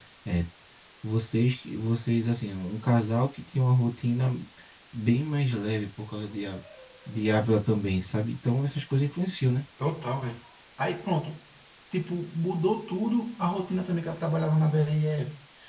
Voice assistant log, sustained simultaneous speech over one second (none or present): none